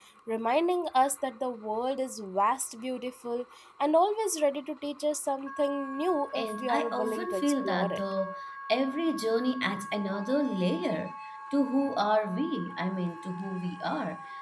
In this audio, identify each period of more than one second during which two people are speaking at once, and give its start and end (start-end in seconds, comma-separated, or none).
6.4-8.0